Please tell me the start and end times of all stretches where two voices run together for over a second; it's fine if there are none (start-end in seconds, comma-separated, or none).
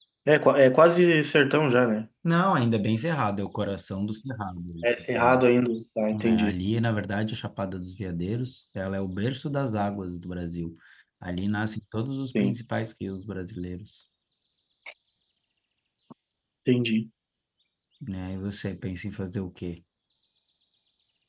none